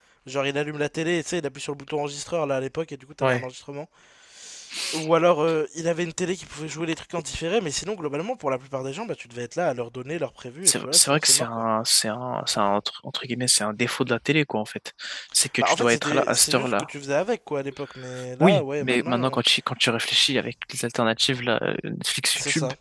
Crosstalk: present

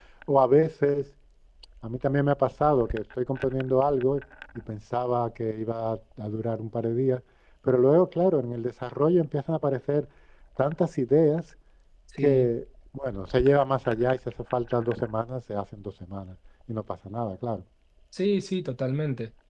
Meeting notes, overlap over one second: none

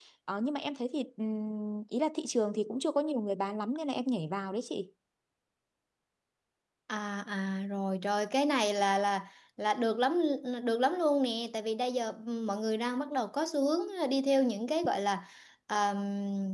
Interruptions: none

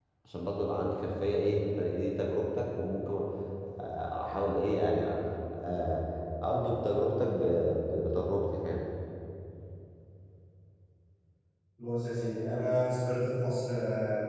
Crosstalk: none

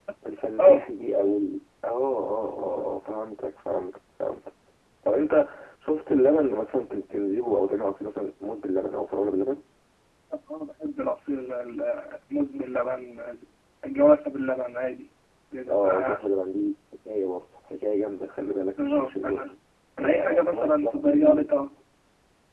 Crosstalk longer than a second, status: present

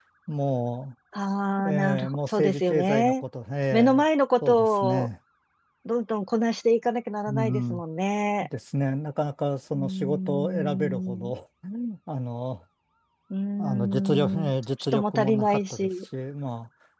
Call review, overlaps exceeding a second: present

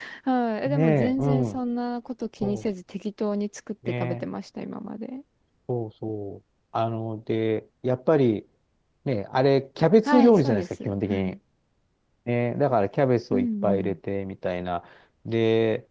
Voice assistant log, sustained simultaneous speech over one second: present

